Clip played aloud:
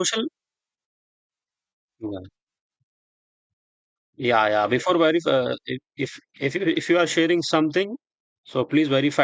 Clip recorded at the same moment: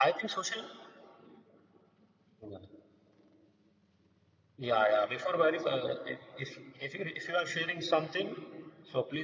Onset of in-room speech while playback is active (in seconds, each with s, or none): none